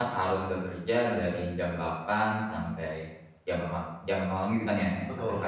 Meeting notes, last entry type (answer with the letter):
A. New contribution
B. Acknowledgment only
B